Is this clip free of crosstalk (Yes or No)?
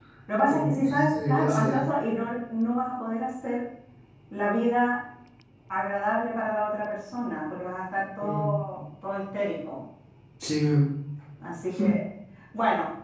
No